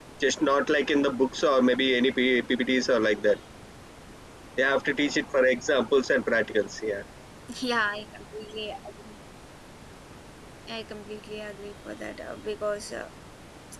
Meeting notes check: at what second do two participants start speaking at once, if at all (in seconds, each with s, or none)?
none